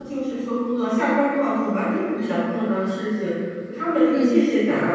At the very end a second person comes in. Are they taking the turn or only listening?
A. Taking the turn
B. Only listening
B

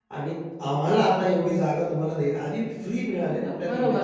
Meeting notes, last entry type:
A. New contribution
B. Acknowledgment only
A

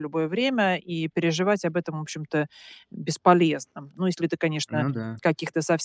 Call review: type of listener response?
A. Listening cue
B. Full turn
A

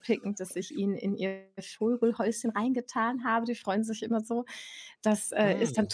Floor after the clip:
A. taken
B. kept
B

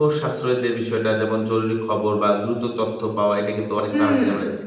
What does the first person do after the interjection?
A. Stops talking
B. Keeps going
B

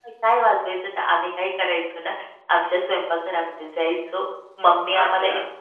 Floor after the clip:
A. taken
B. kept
B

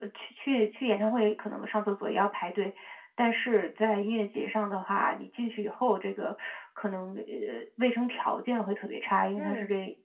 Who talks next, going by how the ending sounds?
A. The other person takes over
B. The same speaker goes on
B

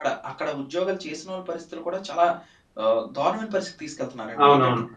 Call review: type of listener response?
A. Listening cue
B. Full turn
A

